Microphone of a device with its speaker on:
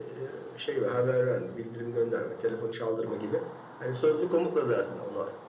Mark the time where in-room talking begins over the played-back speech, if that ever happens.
none

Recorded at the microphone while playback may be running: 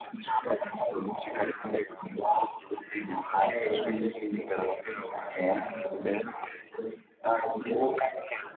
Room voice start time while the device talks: 3 s

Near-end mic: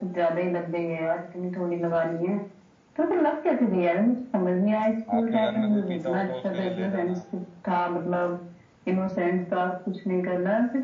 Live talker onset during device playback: 5 s

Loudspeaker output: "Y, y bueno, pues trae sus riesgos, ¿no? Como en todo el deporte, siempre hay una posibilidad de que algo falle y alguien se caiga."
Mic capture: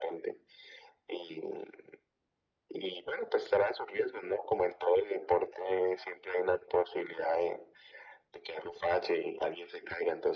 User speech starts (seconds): none

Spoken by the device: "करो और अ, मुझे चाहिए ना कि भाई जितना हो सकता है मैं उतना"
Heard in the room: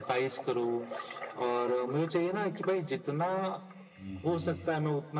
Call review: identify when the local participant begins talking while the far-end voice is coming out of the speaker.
4 s

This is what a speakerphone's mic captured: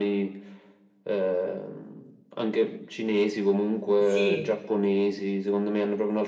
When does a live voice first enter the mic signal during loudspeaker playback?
4 s

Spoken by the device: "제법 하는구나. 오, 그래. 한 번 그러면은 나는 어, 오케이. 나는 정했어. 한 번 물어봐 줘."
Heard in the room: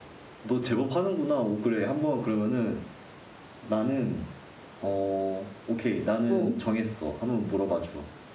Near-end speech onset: 6 s

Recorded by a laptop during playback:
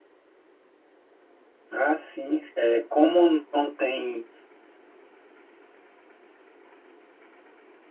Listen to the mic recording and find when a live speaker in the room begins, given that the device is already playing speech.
2 s

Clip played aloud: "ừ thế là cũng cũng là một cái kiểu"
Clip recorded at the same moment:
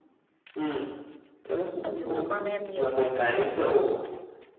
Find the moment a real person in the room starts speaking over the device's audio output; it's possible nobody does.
2 s

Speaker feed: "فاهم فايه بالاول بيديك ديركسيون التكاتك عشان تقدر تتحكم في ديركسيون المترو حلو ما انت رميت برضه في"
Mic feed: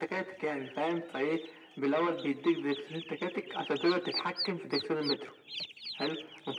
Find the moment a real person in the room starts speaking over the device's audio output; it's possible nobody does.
none

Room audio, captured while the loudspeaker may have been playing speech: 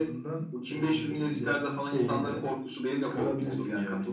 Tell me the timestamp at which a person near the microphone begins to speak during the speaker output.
none

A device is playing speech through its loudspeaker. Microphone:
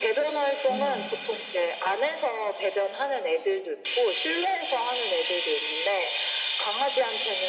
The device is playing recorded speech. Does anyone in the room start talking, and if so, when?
1 s

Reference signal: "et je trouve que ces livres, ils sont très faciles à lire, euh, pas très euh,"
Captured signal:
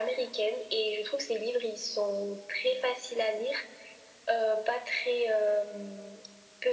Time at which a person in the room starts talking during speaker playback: none

